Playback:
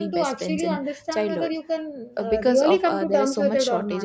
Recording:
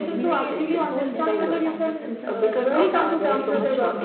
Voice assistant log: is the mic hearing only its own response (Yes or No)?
No